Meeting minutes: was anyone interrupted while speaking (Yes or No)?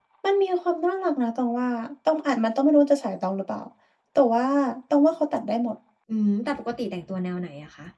No